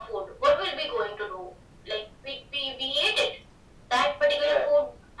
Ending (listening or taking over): listening